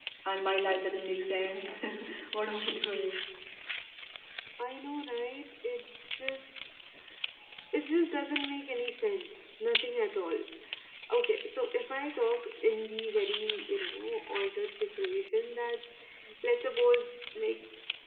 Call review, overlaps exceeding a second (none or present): none